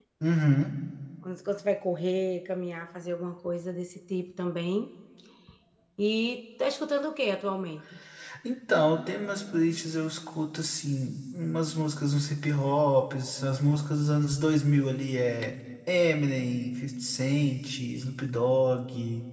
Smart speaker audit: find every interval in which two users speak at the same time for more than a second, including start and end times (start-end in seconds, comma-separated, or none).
none